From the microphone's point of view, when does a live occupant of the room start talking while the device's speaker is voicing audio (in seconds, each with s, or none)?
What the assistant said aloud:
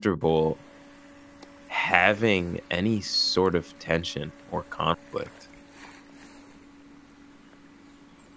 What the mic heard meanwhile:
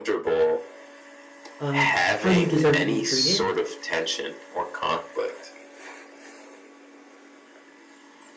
1.6 s